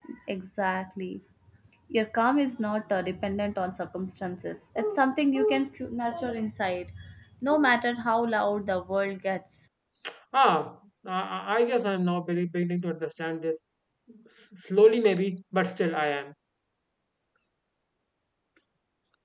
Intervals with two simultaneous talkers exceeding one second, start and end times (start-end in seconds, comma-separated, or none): none